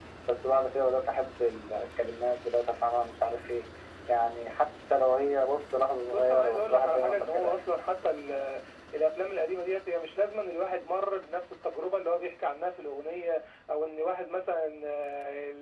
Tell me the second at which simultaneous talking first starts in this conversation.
6.1 s

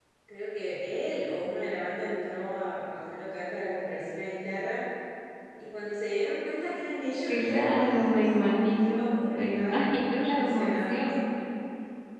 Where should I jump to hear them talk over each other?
7.2 s

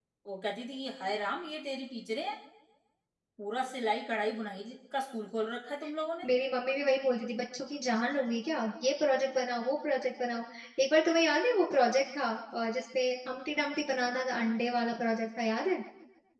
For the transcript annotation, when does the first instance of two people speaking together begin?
none

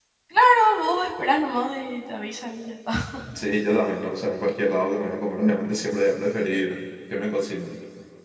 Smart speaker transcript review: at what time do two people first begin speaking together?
none

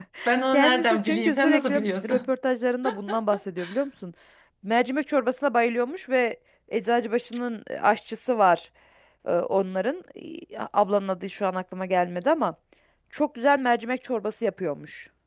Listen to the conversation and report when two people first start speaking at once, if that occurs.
0.5 s

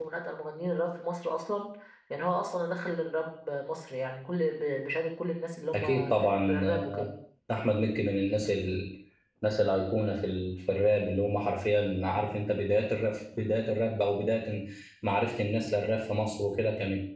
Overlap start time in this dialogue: 5.7 s

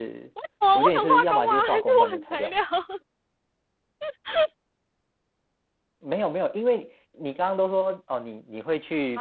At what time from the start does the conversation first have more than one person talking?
0.8 s

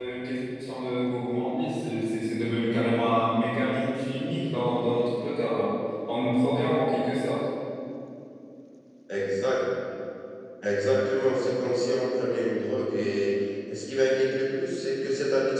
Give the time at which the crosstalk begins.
none

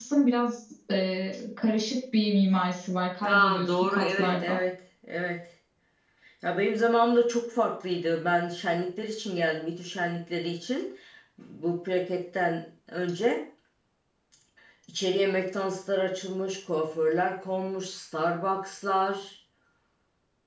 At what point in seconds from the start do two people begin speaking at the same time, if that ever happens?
3.2 s

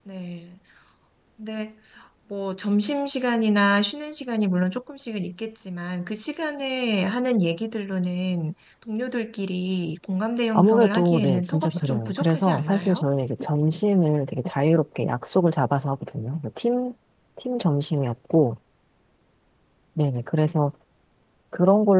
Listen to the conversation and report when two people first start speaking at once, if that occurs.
10.5 s

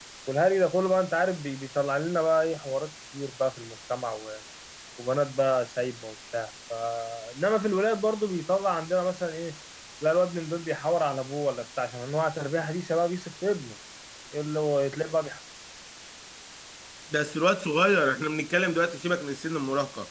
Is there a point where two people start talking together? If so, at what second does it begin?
none

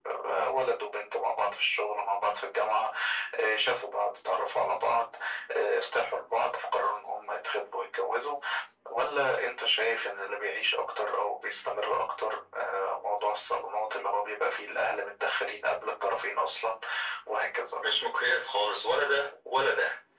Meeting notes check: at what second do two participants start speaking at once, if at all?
none

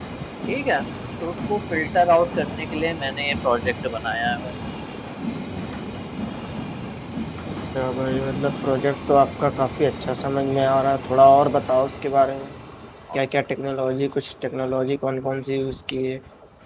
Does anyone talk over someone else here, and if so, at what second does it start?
none

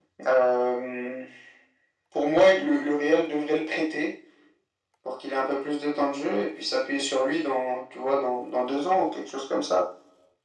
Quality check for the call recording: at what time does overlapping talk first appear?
none

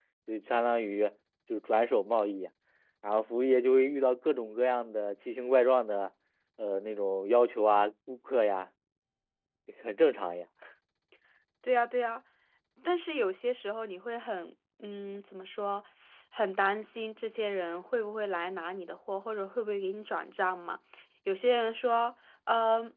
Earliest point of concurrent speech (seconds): none

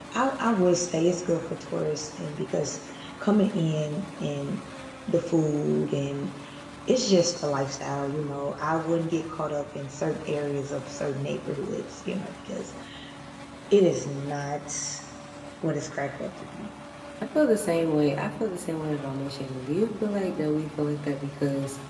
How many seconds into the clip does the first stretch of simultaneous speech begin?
none

